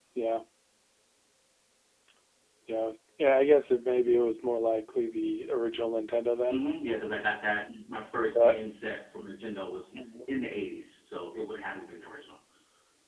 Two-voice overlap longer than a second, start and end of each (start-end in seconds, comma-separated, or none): none